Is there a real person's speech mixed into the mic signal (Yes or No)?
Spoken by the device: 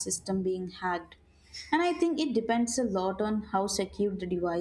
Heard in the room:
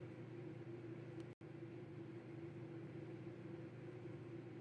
No